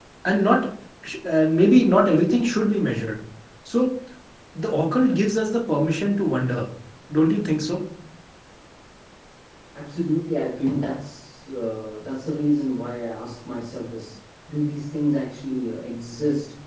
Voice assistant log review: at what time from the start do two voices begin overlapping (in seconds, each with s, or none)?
none